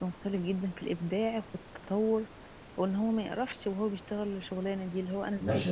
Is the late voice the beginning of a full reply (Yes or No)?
Yes